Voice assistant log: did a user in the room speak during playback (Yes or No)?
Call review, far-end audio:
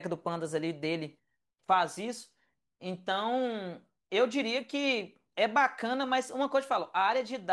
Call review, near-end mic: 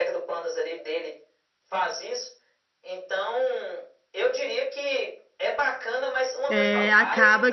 Yes